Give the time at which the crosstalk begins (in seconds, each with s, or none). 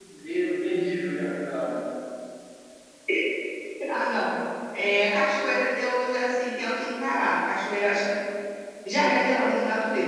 none